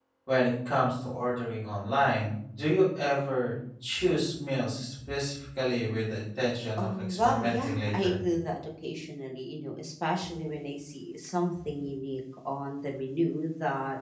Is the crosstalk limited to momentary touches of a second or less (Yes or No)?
No